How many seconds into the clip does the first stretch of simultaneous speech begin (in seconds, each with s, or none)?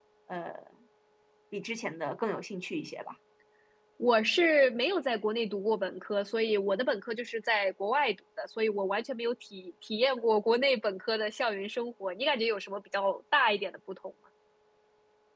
none